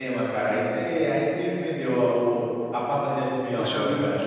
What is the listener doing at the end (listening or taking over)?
taking over